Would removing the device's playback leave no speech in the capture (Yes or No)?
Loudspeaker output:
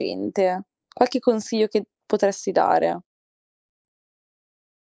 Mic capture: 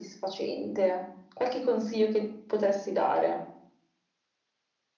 Yes